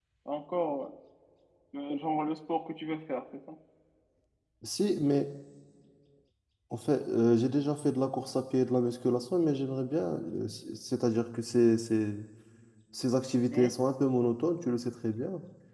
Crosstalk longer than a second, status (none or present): none